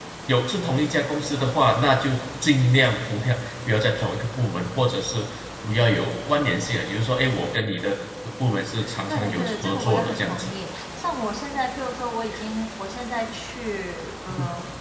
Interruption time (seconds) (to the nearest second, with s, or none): 9 s